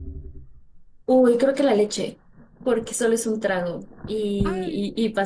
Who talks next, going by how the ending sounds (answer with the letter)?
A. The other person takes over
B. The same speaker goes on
B